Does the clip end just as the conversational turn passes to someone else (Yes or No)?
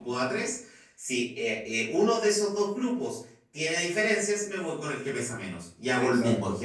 Yes